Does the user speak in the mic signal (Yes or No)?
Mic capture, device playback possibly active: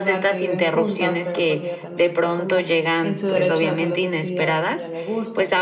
Yes